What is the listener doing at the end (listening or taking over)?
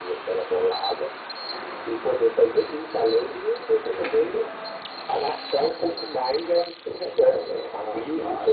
listening